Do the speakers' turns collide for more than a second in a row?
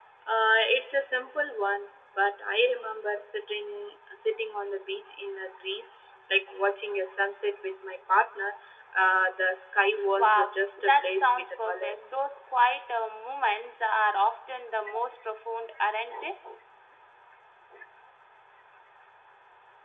Yes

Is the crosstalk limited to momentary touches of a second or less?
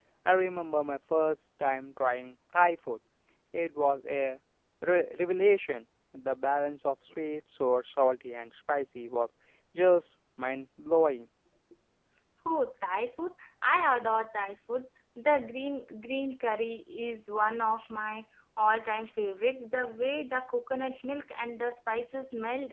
Yes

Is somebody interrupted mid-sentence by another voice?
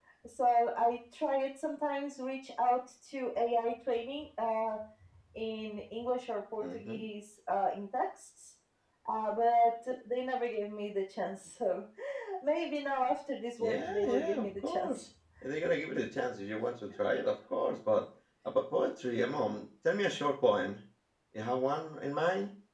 Yes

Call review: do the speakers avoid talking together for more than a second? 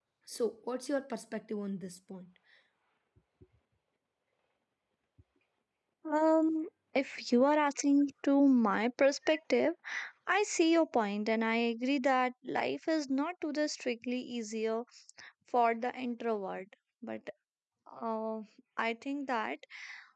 Yes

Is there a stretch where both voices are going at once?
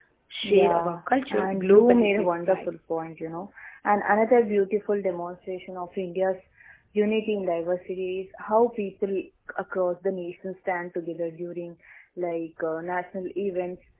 Yes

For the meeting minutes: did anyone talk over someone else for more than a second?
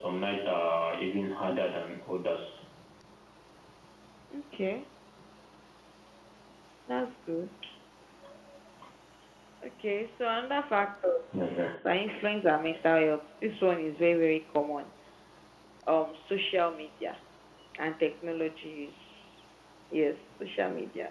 No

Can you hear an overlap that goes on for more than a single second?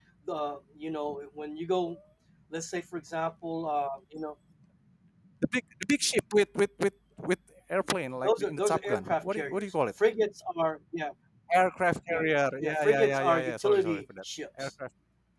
Yes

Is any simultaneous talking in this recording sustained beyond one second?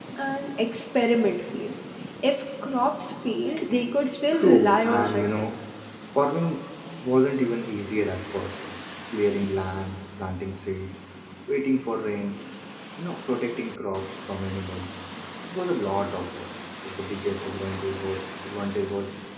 Yes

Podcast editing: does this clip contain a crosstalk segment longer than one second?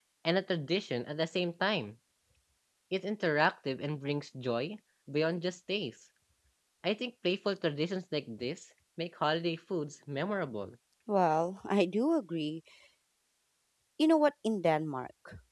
No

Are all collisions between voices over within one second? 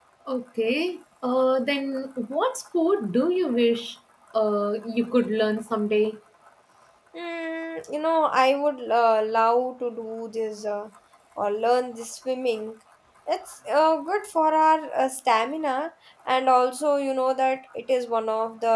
Yes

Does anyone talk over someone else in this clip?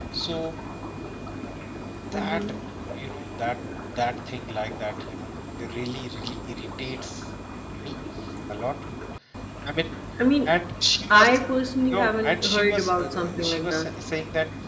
Yes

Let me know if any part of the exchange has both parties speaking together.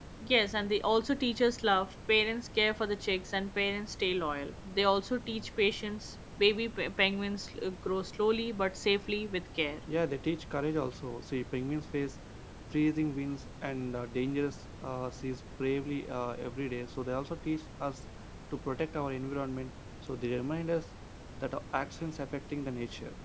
No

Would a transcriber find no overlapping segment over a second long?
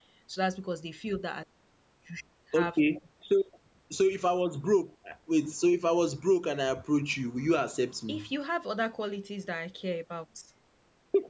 Yes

